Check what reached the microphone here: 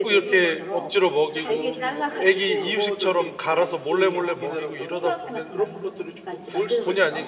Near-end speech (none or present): present